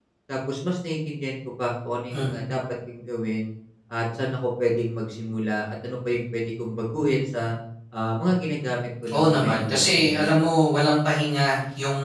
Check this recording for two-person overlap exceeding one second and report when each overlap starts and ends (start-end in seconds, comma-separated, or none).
9.1-10.3